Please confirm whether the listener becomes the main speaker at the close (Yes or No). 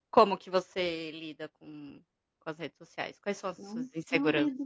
Yes